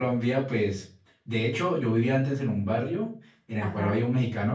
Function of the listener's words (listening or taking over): listening